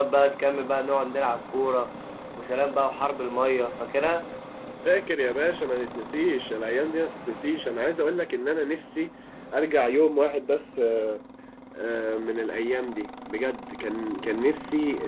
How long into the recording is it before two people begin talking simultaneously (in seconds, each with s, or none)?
none